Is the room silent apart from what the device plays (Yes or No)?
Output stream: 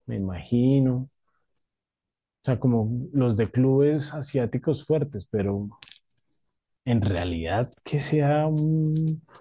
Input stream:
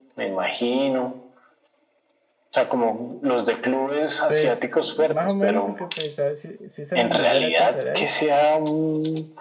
No